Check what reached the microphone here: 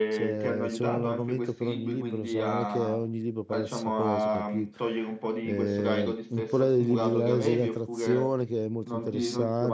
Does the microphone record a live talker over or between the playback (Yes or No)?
Yes